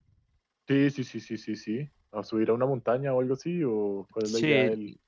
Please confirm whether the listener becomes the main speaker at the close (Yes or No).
Yes